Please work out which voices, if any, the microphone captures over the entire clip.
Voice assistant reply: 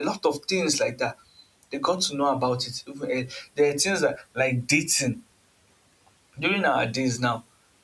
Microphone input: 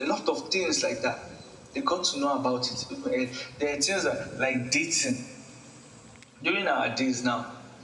echo only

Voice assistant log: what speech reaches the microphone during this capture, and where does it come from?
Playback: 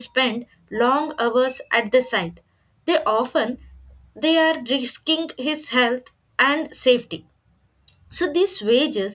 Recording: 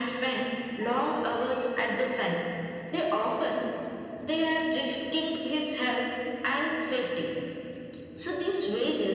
echo only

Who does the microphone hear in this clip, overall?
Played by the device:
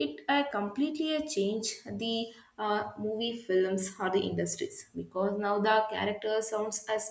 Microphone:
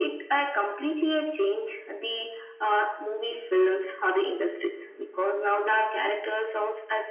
echo only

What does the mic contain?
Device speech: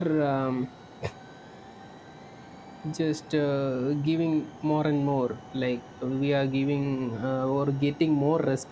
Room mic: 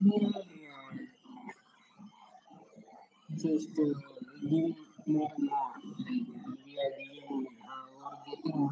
echo only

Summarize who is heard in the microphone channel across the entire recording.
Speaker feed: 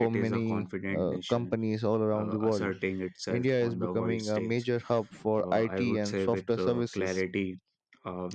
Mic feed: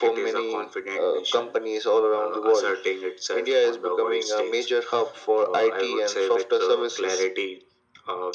echo only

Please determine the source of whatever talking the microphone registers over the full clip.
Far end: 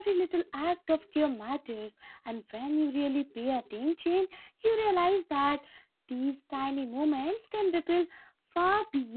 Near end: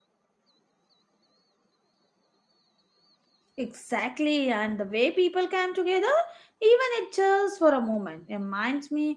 user only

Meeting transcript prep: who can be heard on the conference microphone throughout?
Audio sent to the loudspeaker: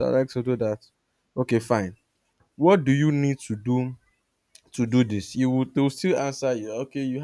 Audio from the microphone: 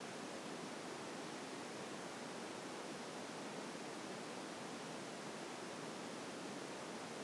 neither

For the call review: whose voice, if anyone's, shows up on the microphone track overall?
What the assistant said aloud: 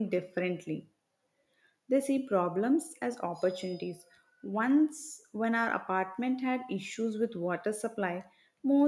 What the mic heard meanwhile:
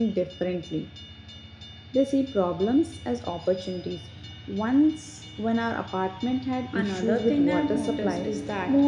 both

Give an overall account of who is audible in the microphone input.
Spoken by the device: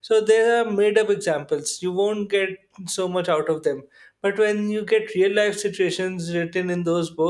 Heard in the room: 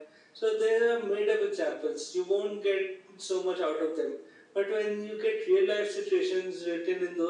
echo only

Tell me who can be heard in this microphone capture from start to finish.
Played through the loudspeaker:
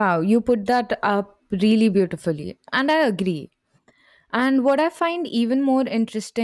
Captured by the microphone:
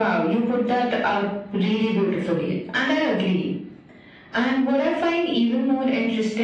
echo only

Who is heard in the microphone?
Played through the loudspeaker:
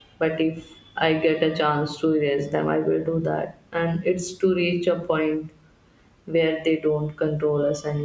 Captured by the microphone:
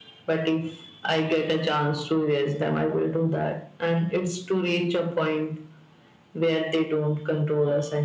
echo only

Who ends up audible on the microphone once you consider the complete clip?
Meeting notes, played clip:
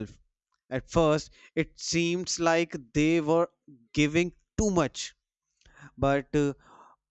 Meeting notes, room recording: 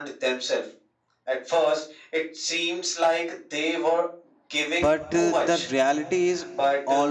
both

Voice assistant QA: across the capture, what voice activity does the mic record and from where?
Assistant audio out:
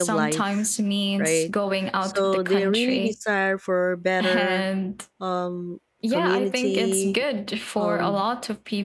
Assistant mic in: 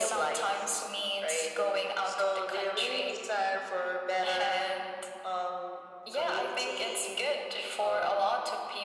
echo only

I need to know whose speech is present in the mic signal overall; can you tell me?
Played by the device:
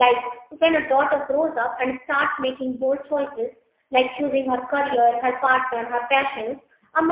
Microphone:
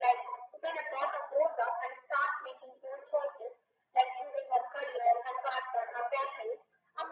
echo only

